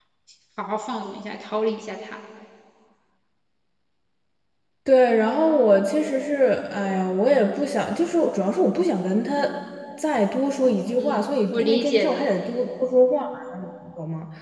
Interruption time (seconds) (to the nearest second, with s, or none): 11 s